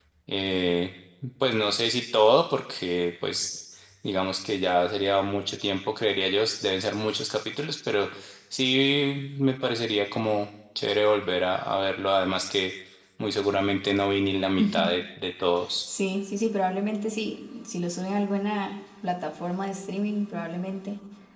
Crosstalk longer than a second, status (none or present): none